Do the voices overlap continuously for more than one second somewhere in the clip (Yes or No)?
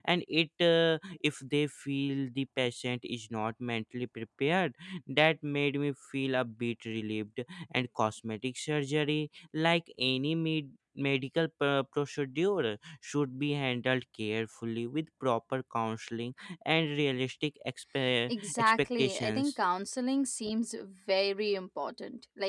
Yes